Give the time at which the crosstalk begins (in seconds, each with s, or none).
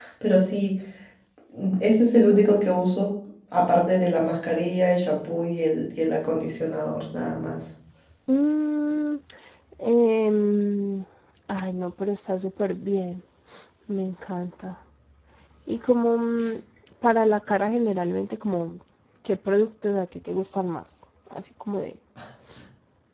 none